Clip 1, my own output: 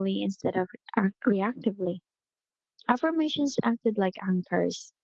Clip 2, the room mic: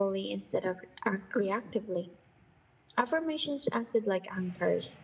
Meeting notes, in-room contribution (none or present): none